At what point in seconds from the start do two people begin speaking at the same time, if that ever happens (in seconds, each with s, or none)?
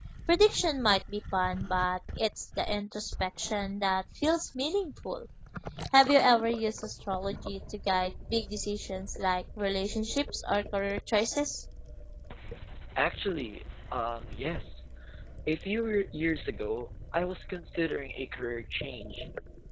none